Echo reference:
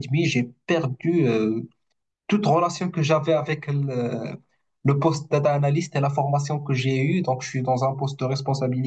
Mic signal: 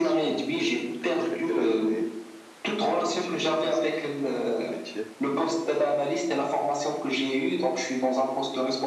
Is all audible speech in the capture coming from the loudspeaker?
No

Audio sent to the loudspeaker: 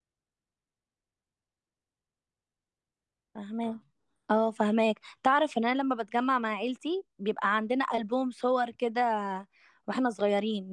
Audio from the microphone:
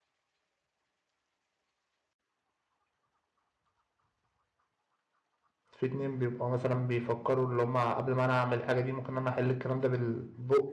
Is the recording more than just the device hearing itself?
Yes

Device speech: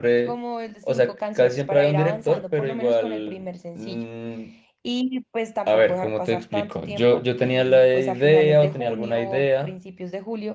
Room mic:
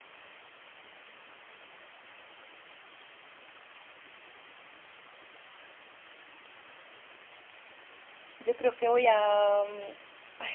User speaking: Yes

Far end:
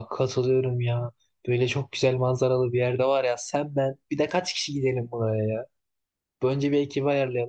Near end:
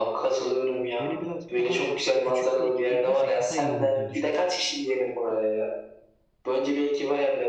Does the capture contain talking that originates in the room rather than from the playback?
Yes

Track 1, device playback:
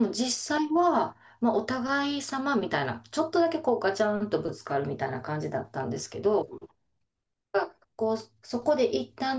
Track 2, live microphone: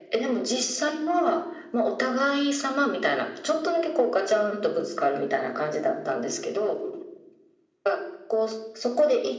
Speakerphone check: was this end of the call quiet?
Yes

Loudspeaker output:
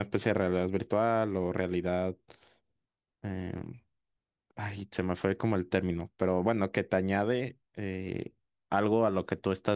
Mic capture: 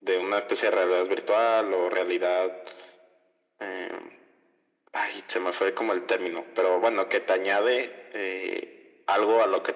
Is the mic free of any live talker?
Yes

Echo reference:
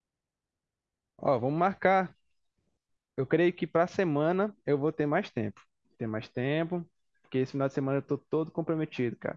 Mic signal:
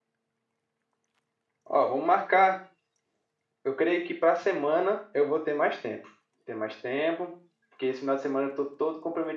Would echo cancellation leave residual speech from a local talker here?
No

